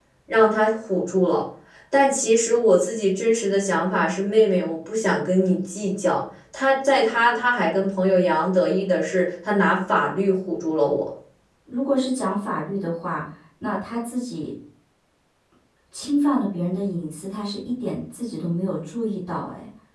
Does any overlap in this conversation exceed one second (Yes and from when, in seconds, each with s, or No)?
No